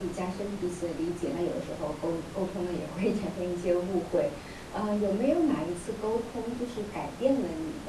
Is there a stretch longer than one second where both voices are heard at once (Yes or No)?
No